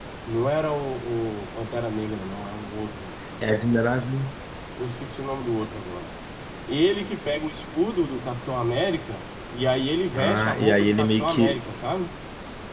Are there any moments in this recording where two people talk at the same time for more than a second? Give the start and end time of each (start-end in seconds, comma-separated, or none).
10.2-11.6